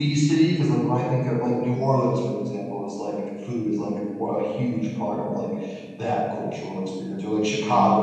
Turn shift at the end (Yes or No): Yes